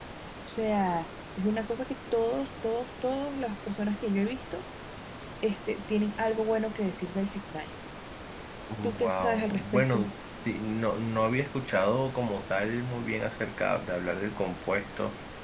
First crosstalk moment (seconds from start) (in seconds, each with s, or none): 8.8 s